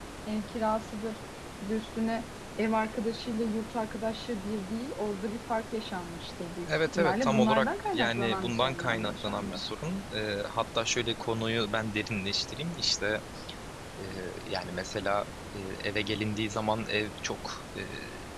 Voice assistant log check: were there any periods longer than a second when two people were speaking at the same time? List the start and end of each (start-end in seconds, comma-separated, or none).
7.0-9.6